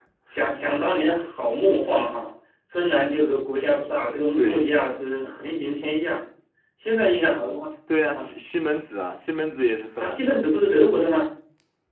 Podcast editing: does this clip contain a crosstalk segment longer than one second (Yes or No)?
No